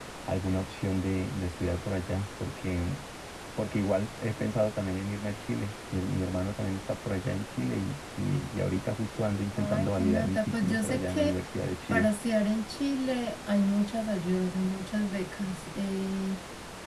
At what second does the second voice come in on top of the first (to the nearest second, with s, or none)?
10 s